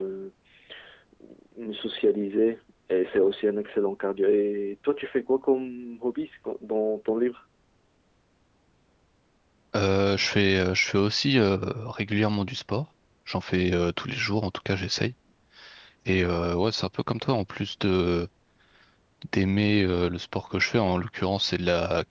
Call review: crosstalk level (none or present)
none